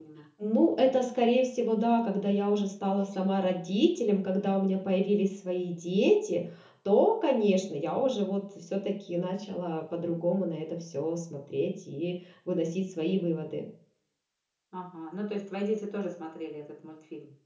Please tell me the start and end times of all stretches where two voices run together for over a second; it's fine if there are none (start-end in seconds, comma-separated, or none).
none